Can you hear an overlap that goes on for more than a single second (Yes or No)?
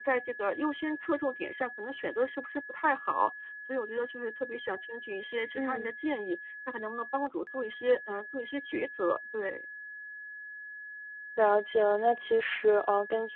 No